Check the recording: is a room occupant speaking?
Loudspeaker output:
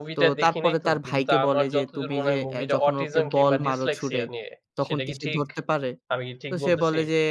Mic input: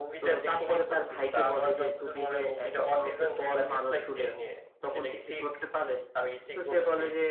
No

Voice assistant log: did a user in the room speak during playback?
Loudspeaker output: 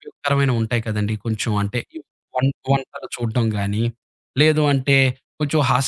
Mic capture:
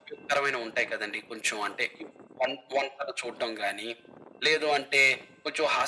No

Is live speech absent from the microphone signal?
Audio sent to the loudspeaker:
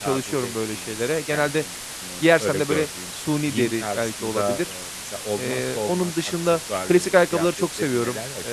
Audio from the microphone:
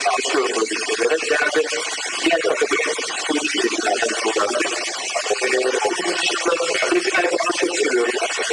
Yes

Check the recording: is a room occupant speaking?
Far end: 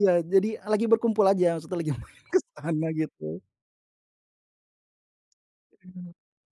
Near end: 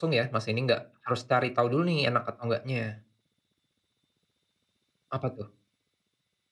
Yes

